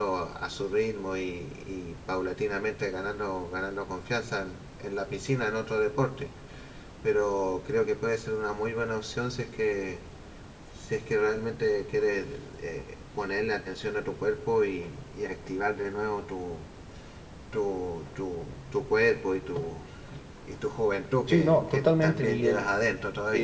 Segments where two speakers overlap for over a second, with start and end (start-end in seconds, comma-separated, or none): 21.3-22.6